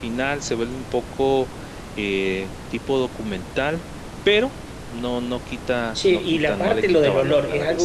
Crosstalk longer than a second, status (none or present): present